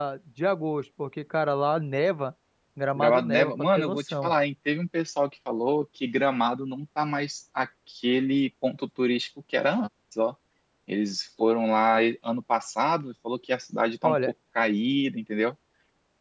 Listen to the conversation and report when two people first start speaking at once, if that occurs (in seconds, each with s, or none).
3.0 s